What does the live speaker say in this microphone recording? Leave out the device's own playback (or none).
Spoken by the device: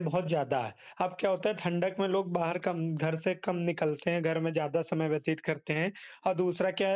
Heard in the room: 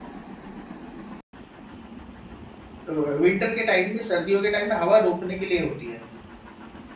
अ, विन्टर के टाइम में, सर्दियों के टाइम में हवा रोकने के लिए होती है।